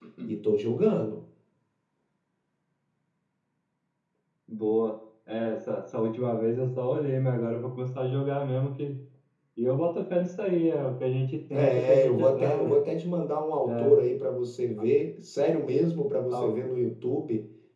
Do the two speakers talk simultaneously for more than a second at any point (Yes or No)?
Yes